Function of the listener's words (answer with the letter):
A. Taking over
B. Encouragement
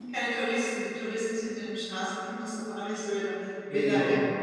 A